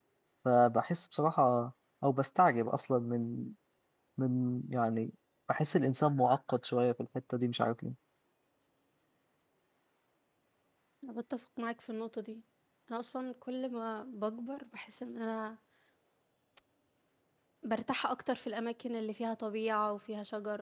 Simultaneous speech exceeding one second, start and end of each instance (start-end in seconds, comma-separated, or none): none